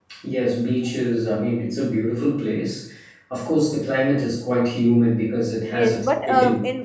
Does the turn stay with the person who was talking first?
No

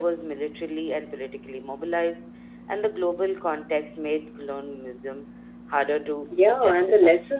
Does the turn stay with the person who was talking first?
No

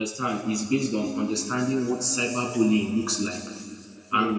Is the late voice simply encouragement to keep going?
Yes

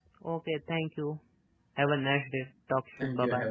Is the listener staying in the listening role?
No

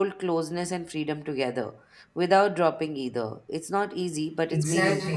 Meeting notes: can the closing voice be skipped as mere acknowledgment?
No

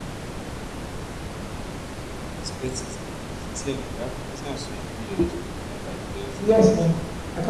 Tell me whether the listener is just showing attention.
No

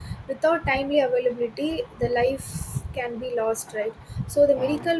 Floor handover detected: No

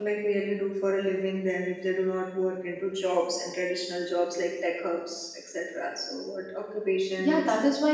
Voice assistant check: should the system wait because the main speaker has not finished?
No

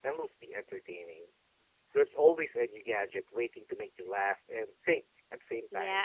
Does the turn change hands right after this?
Yes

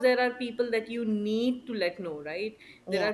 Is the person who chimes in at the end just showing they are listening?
Yes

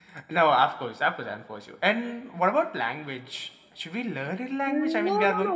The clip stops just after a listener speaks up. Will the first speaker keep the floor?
No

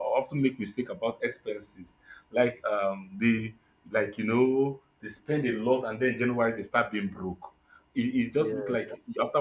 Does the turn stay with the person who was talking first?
Yes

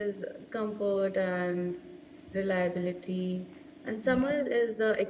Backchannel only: Yes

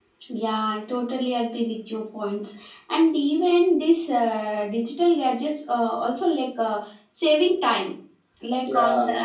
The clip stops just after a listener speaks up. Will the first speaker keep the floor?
Yes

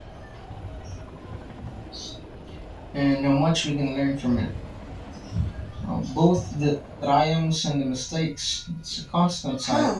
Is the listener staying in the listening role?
No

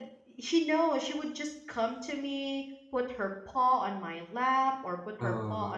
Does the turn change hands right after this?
No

